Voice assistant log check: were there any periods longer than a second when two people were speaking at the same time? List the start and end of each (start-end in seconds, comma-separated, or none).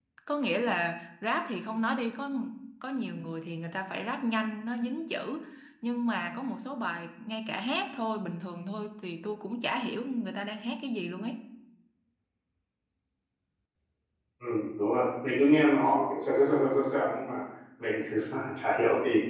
none